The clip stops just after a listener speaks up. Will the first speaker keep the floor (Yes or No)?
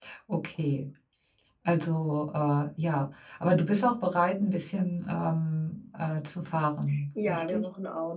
No